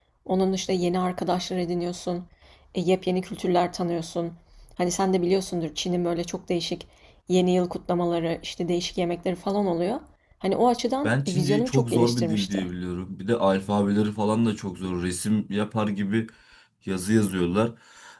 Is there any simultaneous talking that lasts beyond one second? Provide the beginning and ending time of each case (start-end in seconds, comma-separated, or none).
11.0-12.6